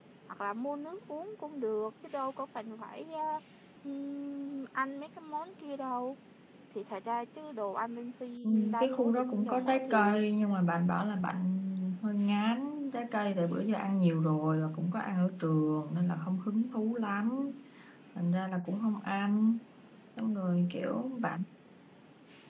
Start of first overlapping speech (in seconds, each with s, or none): 8.4 s